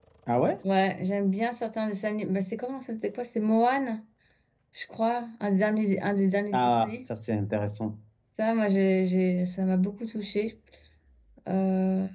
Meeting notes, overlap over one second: none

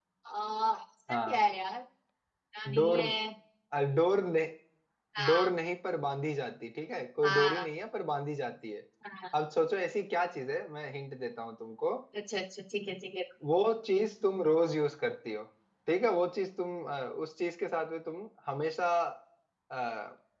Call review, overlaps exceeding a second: none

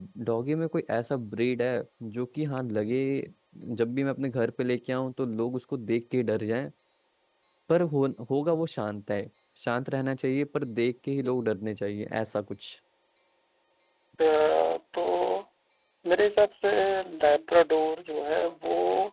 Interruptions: none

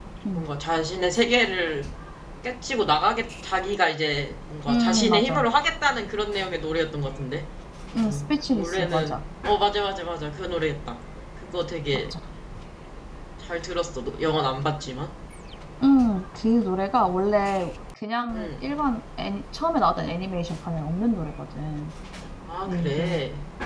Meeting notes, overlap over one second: present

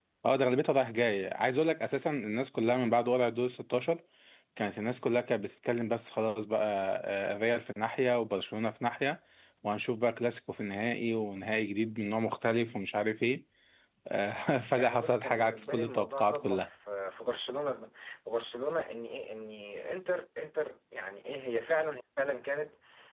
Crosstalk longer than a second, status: present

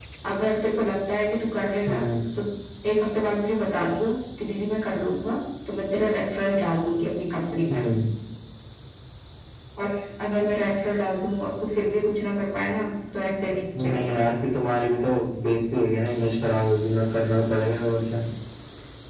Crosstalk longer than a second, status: none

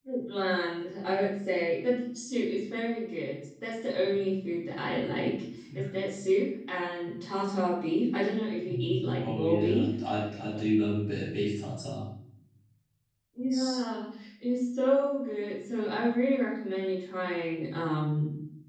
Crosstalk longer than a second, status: present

